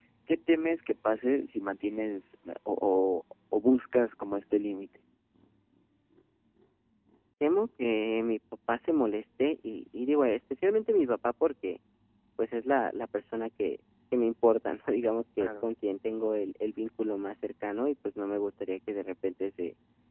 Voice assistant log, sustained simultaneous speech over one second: none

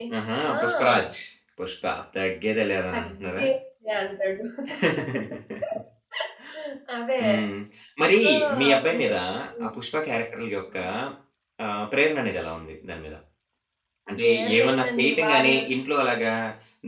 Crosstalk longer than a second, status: present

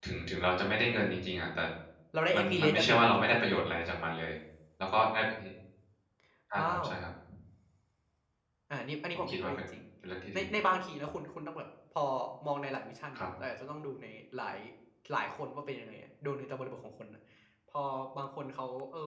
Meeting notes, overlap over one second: present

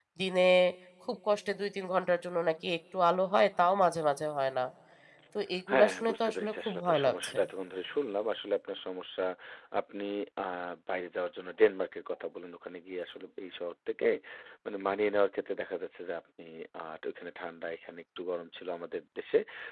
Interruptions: present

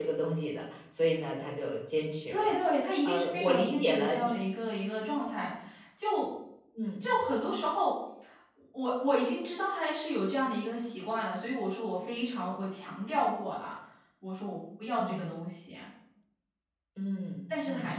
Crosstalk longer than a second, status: present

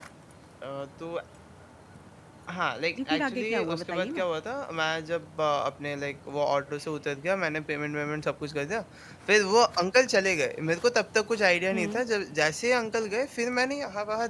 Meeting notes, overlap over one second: present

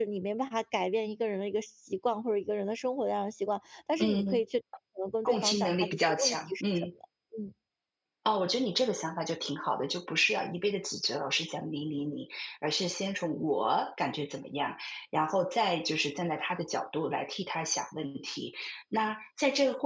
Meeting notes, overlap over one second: present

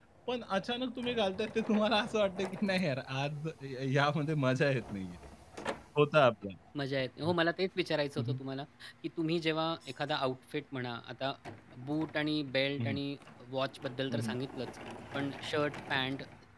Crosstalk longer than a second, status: none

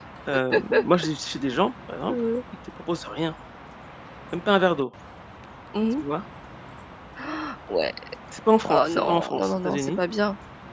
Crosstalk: present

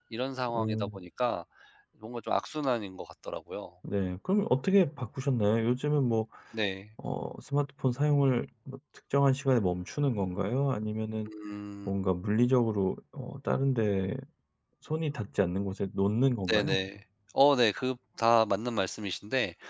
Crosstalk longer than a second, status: none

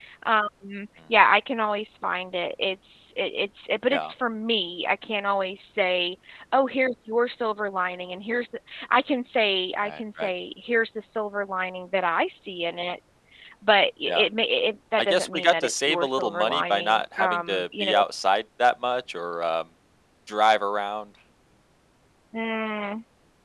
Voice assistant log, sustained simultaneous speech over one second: present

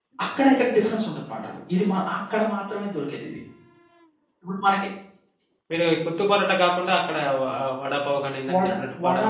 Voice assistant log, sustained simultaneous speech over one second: none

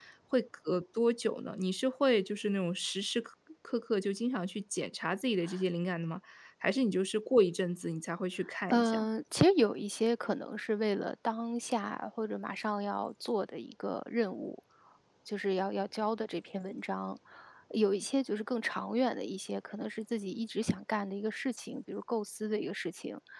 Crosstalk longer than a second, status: none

